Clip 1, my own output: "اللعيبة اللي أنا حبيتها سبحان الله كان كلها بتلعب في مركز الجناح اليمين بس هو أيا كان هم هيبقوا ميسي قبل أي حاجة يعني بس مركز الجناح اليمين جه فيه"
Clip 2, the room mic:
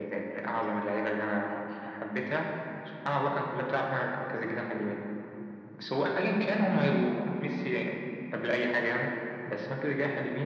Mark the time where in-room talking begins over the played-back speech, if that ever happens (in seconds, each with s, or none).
none